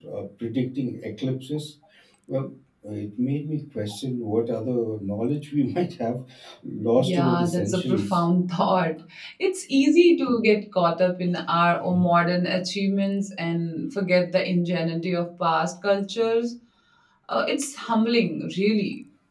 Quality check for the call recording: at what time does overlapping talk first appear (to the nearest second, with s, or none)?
7 s